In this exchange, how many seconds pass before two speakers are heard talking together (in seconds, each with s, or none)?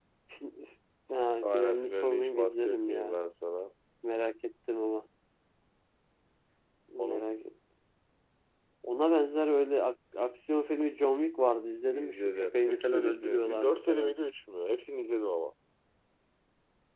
1.4 s